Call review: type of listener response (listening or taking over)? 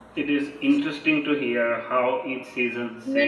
taking over